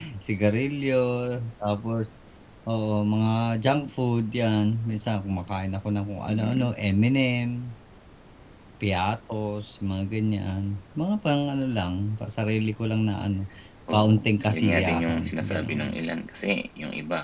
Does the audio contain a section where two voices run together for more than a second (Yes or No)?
Yes